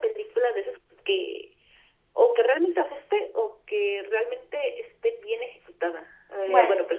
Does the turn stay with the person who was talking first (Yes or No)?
Yes